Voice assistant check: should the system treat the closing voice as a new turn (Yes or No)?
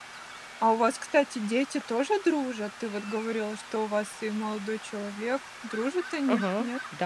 Yes